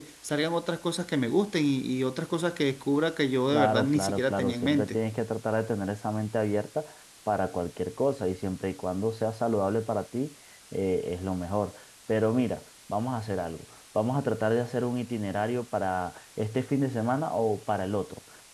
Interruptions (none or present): present